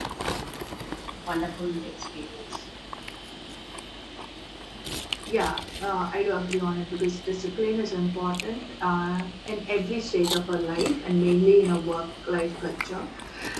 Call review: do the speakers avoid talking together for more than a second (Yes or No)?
Yes